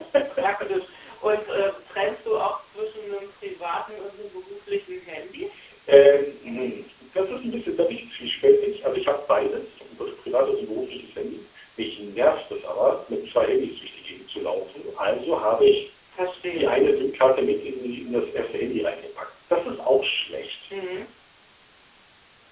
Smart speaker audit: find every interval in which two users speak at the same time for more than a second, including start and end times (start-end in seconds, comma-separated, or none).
none